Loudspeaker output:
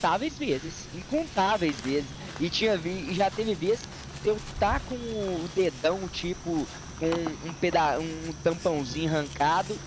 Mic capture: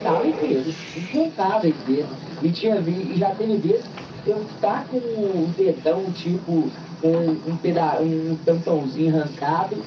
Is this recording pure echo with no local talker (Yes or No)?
Yes